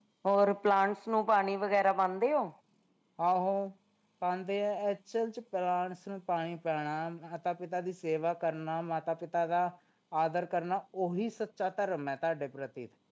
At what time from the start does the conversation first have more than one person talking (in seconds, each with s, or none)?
none